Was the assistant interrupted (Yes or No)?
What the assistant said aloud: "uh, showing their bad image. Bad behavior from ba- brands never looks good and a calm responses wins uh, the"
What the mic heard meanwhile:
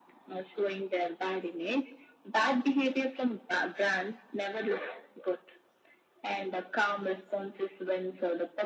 No